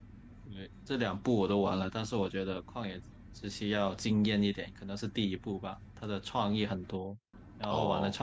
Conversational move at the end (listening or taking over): listening